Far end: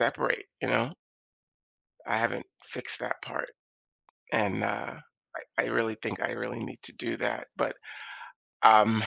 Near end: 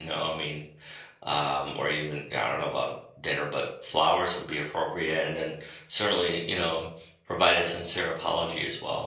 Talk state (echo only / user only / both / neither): user only